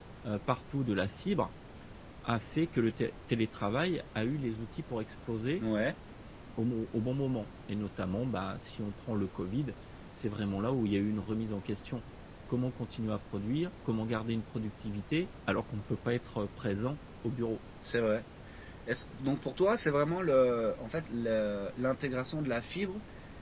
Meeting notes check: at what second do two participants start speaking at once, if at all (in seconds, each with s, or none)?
none